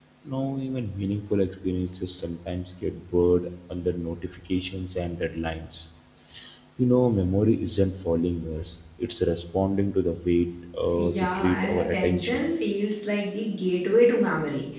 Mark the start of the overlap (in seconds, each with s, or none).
10.9 s